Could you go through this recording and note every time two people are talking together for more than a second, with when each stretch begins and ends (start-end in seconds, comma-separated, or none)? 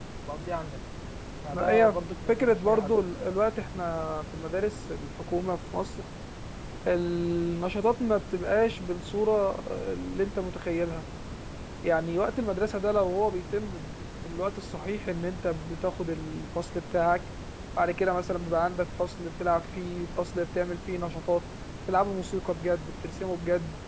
1.5-3.0